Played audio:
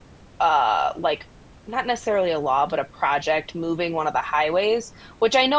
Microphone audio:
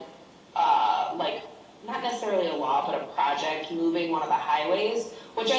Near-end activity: none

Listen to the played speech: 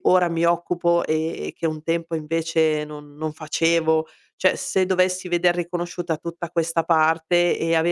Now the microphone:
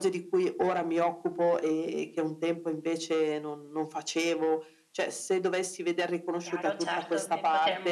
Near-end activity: present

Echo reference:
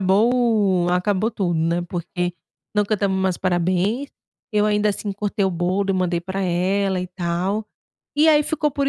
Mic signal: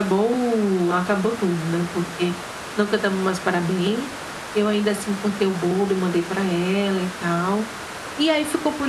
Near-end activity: none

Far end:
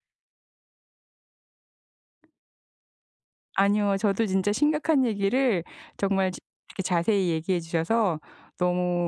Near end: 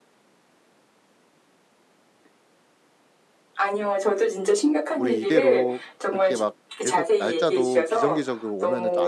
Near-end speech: present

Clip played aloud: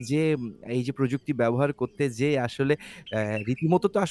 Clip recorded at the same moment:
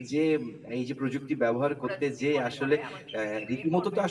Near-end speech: present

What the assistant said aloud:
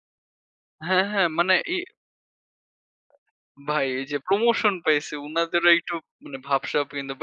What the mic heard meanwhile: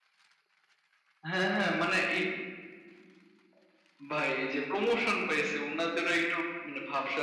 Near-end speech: none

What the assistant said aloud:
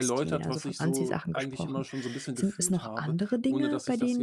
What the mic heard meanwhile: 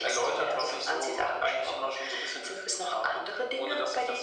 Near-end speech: none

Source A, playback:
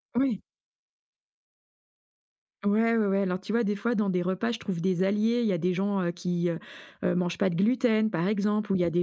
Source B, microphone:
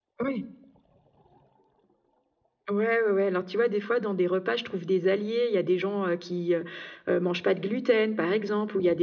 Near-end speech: none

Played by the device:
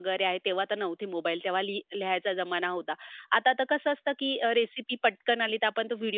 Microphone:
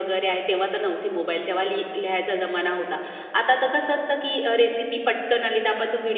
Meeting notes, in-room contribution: none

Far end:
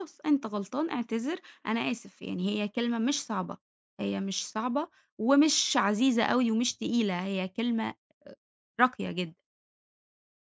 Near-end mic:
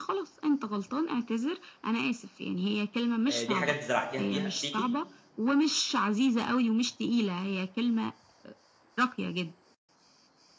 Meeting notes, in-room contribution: present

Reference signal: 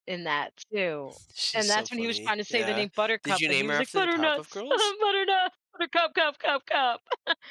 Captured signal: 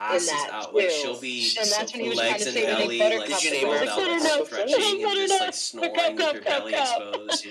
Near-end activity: present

